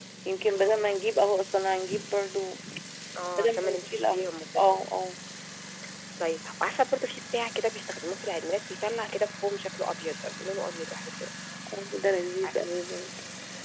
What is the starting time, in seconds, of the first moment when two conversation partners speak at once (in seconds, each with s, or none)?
3.4 s